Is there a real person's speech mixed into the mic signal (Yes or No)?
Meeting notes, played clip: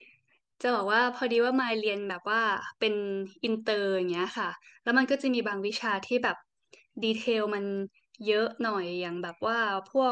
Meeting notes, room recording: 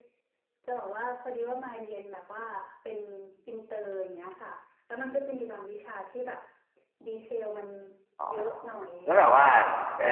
Yes